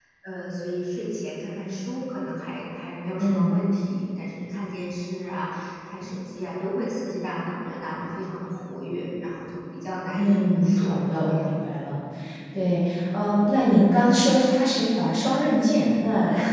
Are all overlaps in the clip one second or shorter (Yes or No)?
No